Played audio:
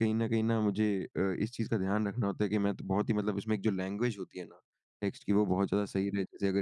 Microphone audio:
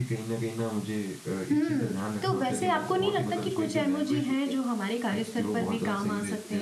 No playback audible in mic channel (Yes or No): No